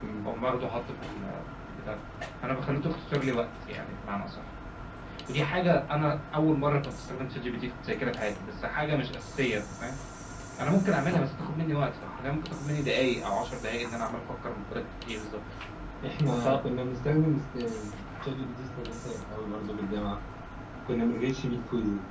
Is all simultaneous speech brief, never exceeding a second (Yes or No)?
Yes